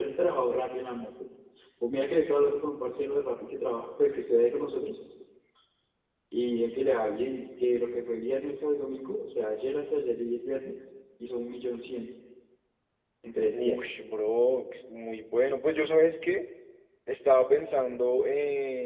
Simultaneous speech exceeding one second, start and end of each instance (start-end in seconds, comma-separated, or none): none